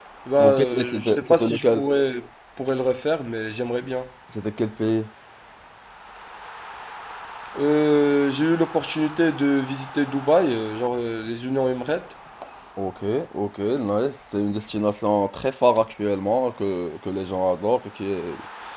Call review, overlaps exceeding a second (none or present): present